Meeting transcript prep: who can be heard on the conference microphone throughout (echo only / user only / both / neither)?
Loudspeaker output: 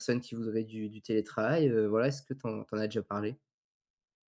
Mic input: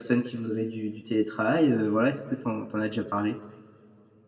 echo only